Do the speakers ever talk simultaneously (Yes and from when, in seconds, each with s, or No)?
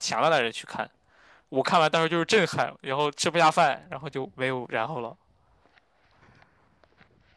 No